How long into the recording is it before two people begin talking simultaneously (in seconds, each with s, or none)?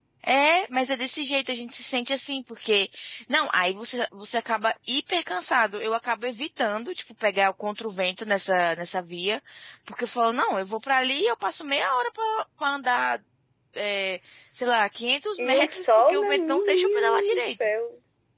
15.4 s